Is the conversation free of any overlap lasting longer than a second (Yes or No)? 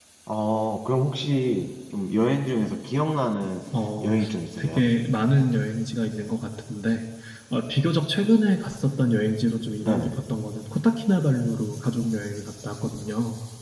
Yes